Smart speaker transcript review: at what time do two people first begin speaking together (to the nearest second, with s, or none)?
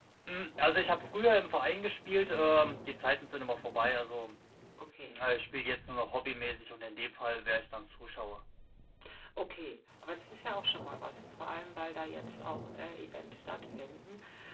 none